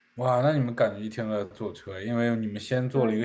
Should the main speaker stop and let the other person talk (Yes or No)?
No